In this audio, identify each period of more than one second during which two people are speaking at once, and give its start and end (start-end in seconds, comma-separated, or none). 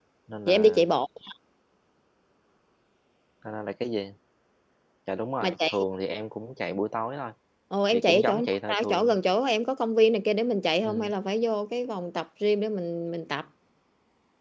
7.9-9.2